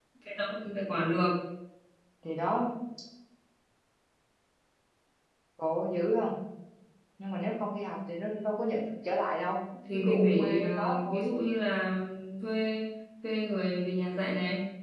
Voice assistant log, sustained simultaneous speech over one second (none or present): present